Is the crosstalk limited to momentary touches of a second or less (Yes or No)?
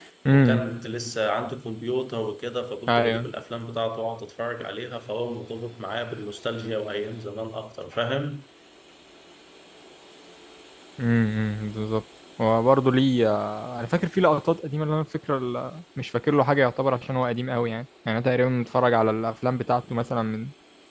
Yes